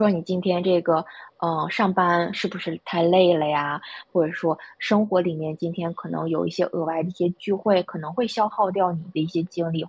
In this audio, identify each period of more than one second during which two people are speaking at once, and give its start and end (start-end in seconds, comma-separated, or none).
none